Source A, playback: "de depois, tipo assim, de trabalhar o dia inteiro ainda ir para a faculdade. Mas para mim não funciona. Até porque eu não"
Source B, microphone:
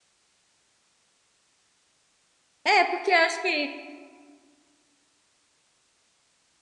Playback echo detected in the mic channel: No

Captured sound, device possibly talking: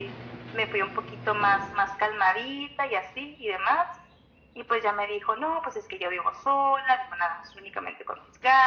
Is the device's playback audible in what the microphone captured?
Yes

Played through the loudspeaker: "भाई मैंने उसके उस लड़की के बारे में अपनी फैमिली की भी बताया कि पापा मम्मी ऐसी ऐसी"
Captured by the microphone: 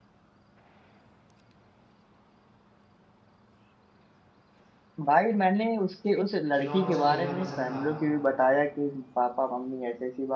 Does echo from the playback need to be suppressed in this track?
Yes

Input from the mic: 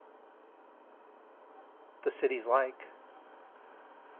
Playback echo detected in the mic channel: No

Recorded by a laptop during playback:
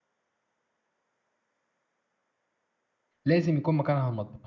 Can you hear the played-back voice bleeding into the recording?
No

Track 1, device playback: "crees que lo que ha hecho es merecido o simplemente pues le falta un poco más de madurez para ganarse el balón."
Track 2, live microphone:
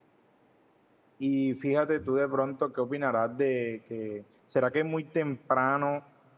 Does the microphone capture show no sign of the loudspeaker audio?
Yes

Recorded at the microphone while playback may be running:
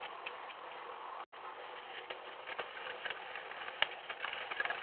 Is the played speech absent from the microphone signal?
Yes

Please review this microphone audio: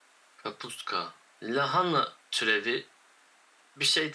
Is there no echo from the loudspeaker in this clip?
No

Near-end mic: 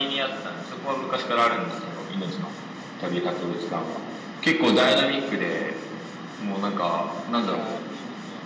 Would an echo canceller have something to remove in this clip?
Yes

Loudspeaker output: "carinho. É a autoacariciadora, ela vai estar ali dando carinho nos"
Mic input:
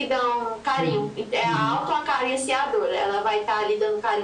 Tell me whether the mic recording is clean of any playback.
No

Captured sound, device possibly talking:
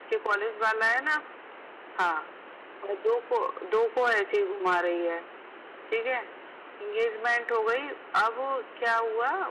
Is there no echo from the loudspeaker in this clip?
No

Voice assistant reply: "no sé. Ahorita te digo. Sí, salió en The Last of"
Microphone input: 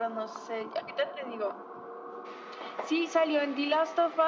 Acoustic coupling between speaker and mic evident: Yes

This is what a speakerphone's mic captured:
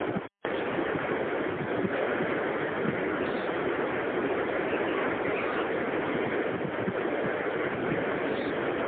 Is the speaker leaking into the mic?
No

